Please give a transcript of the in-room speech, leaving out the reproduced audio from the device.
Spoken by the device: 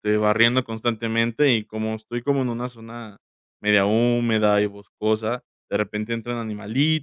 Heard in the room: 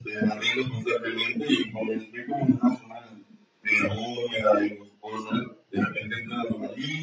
none

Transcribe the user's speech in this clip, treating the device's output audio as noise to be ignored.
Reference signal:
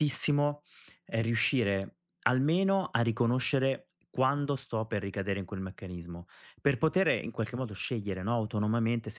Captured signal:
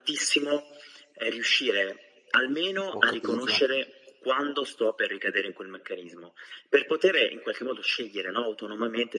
ho capito.

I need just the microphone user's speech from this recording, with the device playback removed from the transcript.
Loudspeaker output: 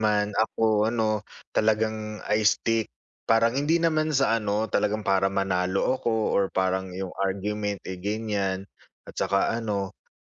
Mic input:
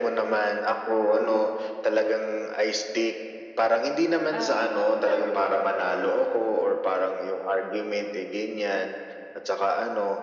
Ah, well

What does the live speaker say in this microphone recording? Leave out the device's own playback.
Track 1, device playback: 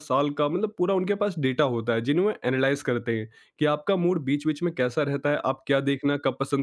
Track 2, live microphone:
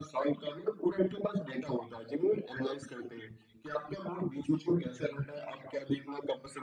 none

